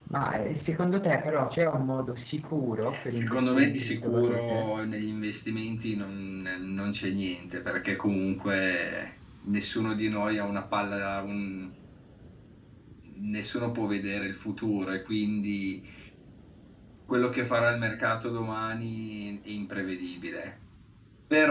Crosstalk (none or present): present